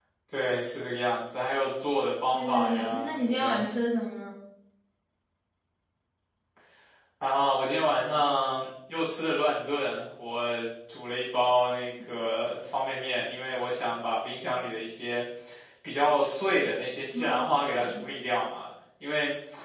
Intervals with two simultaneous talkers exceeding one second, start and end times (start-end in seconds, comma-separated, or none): 2.3-3.6